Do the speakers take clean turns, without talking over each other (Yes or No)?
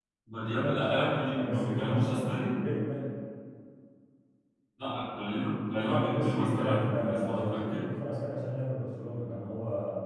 No